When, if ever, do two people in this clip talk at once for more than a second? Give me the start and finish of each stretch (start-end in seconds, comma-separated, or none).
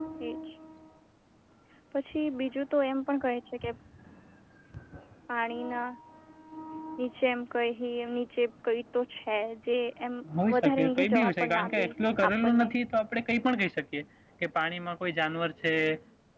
10.5-11.8